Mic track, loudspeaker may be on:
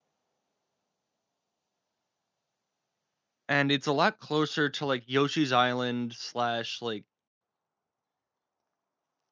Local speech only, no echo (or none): and it's a lot closer to, like, Yoshi's Island slash, like,